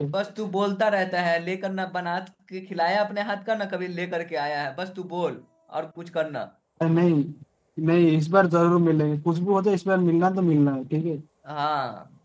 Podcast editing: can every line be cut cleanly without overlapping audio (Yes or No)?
Yes